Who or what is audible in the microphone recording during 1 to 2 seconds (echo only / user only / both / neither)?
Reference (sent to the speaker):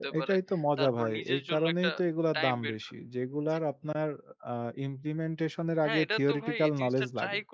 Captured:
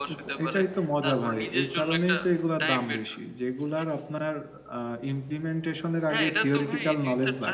echo only